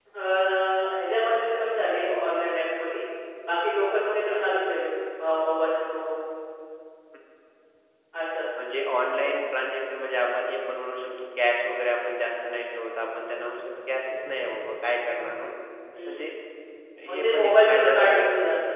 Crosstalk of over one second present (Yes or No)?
Yes